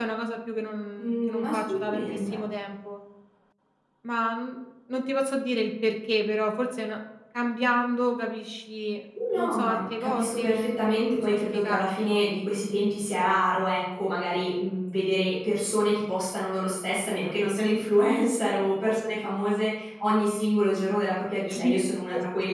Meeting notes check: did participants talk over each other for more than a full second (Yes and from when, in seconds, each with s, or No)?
Yes, from 1.0 s